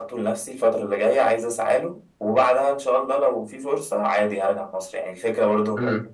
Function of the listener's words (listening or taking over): listening